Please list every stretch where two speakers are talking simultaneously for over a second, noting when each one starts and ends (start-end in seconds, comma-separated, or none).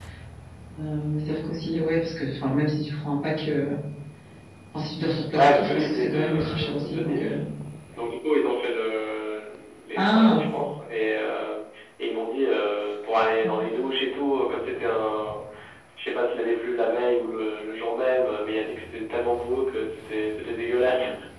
5.3-7.4